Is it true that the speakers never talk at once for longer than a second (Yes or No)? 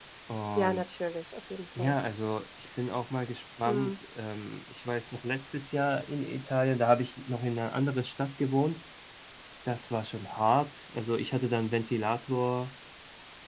Yes